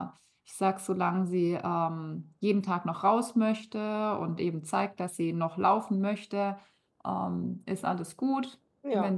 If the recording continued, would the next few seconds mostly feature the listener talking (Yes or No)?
No